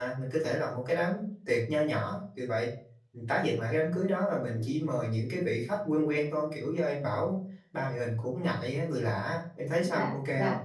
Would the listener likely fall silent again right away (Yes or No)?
No